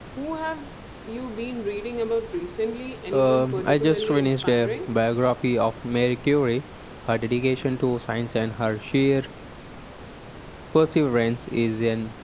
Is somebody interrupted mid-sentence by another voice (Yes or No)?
Yes